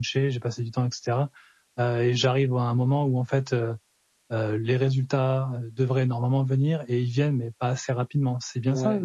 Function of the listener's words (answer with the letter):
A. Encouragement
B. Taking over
B